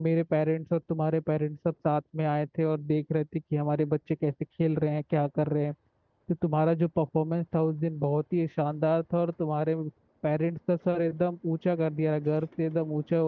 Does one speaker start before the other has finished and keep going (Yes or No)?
No